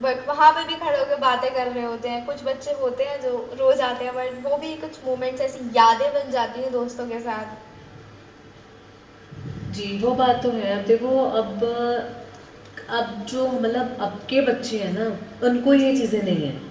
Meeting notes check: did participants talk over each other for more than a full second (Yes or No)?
No